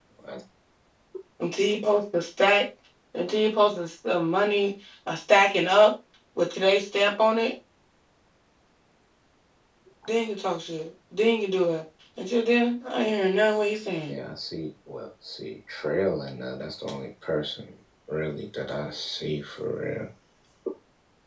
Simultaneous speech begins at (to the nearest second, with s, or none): none